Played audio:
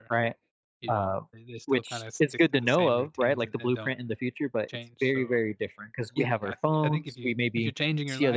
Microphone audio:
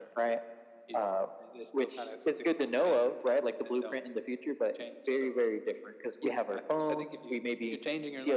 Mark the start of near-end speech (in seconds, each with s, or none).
none